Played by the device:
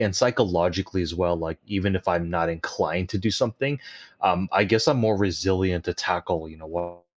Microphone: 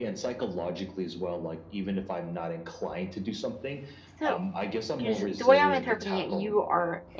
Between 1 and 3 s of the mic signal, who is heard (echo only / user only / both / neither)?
echo only